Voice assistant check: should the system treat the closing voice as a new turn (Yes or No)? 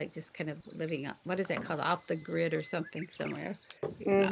Yes